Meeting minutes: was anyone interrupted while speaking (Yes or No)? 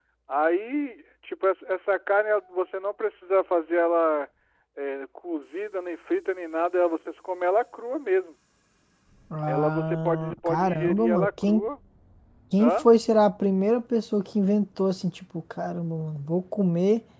Yes